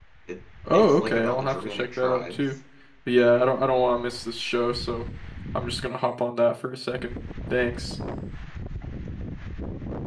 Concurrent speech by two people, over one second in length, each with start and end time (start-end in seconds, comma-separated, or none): 0.7-2.4